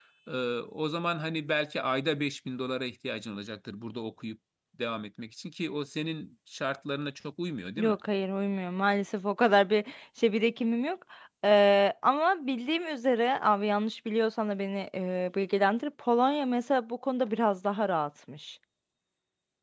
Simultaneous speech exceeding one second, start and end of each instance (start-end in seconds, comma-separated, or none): none